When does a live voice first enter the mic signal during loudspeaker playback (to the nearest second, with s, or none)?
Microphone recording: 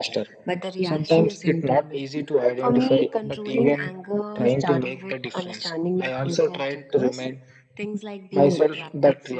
none